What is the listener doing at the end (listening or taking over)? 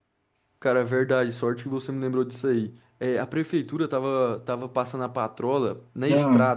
listening